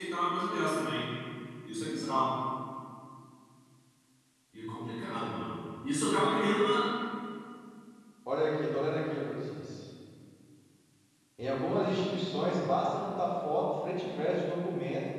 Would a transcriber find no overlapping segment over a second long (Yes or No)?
Yes